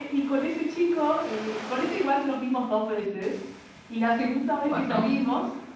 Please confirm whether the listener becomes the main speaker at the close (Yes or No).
No